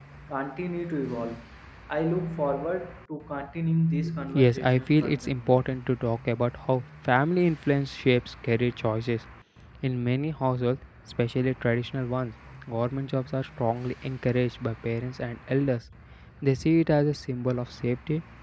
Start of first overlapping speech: 4.3 s

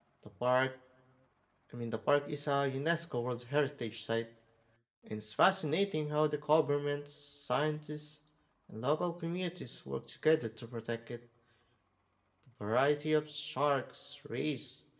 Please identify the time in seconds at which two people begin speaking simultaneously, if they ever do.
none

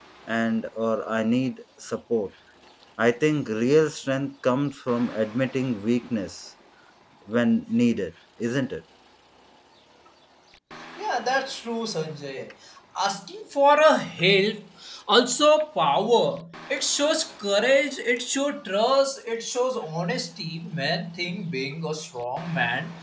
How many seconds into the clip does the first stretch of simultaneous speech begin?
none

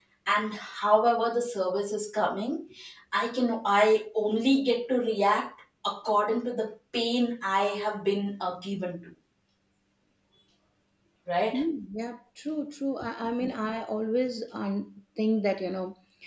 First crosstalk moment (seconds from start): none

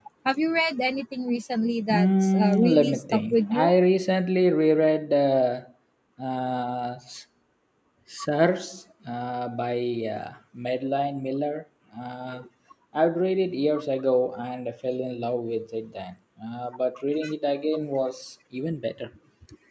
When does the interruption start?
1.9 s

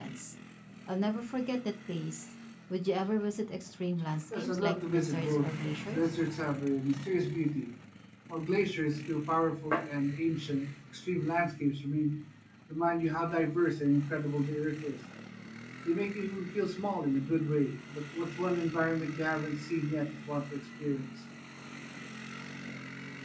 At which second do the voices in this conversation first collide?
4.3 s

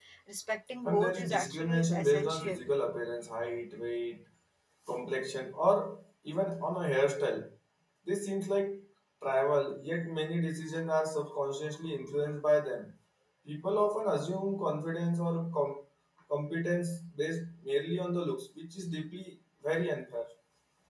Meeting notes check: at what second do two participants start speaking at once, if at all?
0.8 s

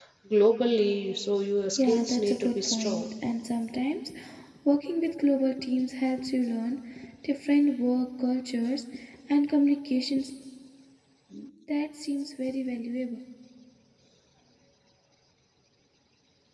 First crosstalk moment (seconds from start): 1.8 s

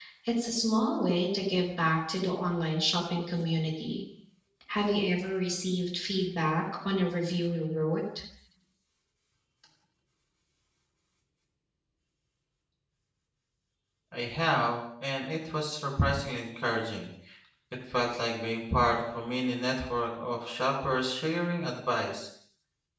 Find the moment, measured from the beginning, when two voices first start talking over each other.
none

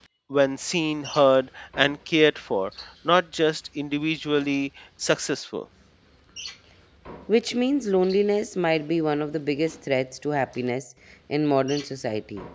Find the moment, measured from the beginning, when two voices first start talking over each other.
none

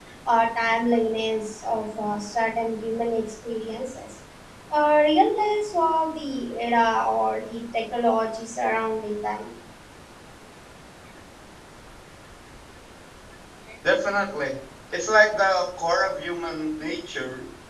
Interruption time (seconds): none

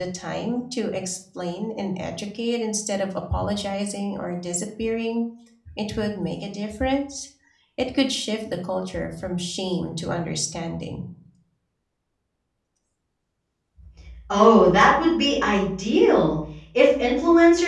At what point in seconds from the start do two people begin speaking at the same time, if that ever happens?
none

